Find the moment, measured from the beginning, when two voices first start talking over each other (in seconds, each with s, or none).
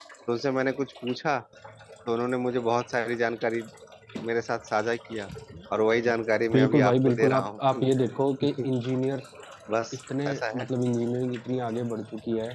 6.5 s